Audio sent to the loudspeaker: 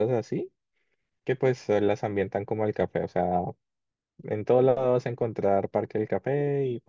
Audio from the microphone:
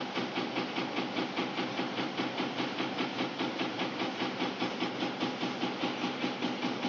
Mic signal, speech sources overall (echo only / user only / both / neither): neither